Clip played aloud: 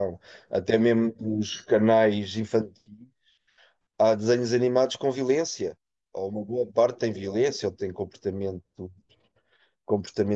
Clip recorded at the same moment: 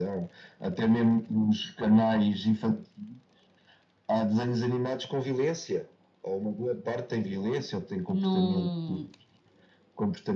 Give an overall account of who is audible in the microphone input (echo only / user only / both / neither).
both